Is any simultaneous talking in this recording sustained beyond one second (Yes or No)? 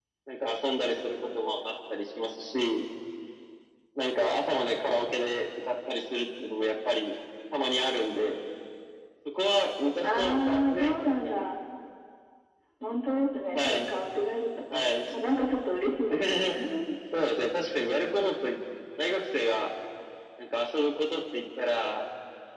Yes